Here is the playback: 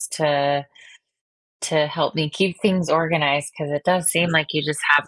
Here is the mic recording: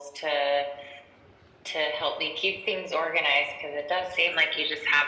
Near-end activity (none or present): none